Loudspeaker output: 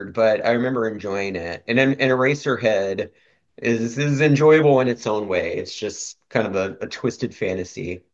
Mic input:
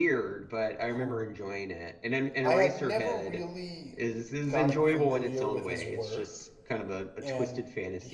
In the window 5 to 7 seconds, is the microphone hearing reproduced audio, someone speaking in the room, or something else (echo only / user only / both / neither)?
both